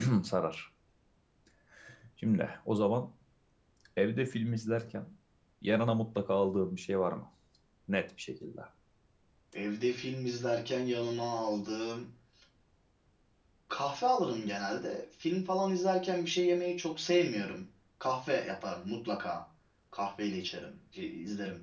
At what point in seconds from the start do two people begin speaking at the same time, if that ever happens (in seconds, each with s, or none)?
none